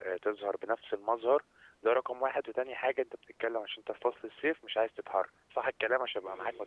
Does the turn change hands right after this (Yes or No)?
Yes